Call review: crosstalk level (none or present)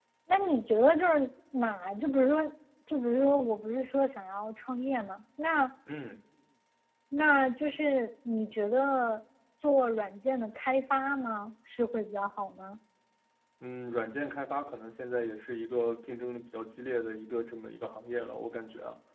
none